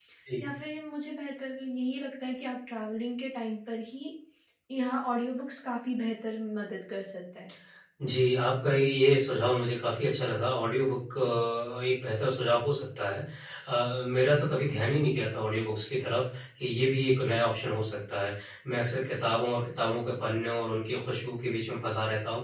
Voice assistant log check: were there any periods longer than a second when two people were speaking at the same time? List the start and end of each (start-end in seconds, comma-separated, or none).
none